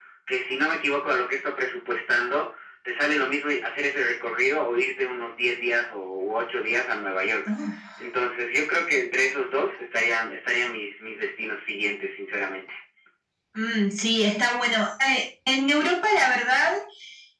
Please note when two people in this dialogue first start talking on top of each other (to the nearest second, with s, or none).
none